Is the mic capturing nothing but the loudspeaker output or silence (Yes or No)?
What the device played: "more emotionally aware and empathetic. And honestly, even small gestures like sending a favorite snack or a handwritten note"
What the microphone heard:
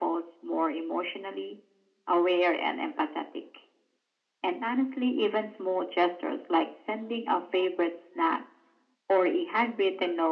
Yes